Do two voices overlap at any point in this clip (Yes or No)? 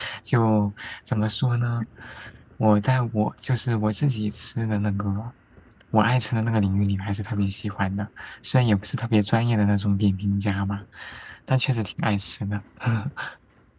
No